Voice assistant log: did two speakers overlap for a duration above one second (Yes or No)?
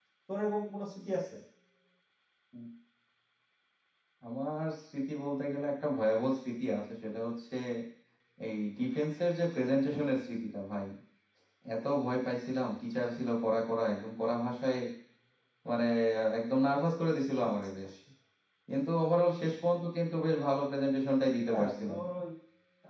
No